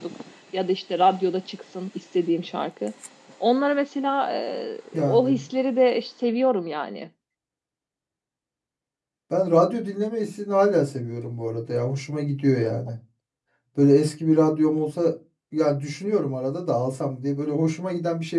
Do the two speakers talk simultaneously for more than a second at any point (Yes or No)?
No